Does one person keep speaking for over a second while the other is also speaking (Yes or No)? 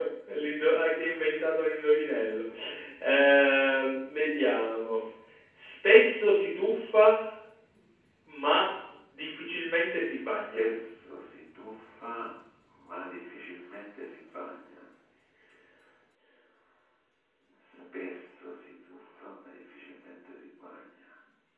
No